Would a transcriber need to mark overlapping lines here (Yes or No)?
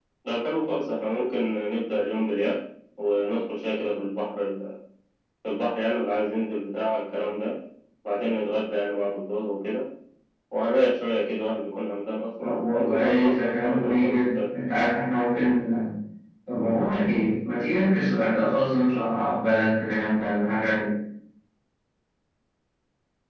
Yes